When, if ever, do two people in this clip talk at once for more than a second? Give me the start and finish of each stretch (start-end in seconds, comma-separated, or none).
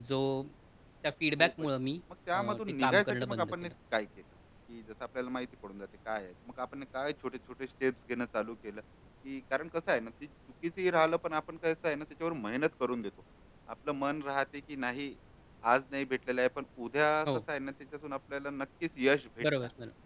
2.3-3.7